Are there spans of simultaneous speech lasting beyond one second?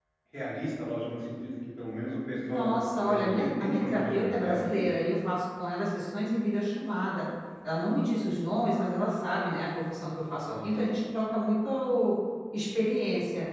Yes, from 2.5 s

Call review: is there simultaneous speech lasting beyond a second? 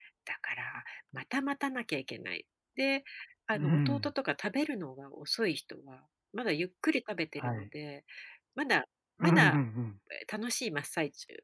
No

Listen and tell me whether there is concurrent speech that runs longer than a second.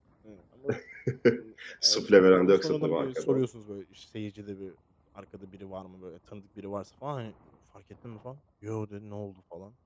Yes, from 1.8 s

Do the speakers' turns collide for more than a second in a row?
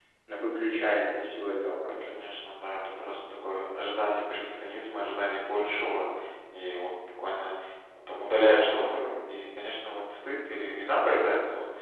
No

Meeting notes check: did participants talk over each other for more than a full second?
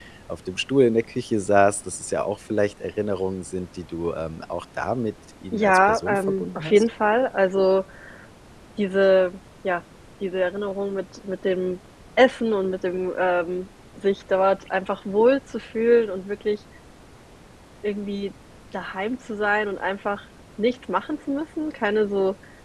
Yes, from 5.5 s

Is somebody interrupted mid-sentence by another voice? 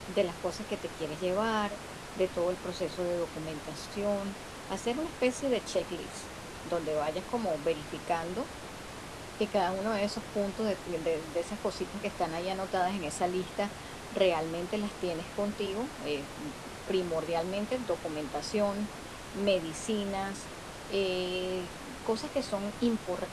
No

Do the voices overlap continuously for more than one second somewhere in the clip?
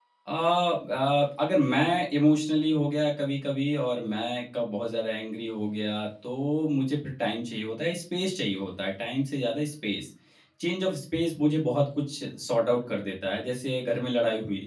No

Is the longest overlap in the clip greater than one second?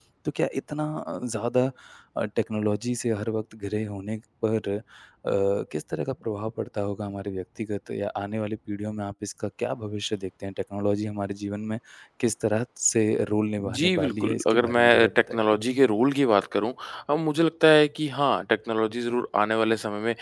Yes, from 13.6 s

